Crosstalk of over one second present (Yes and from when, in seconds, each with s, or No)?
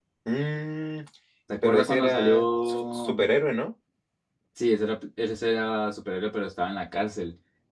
Yes, from 1.6 s